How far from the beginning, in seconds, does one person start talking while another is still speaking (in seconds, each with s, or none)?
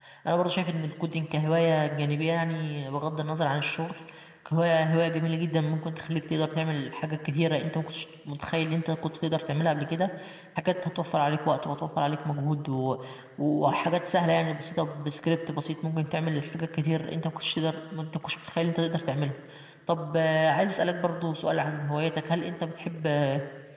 none